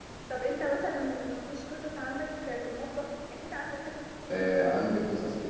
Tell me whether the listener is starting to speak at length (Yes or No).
Yes